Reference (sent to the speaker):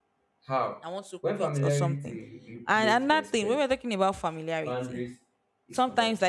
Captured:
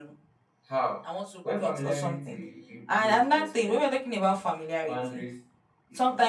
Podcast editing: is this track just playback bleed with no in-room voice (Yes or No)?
Yes